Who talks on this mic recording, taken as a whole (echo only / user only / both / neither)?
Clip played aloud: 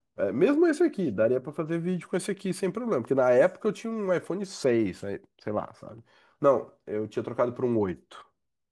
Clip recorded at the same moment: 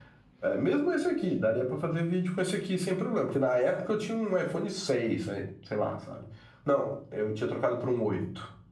echo only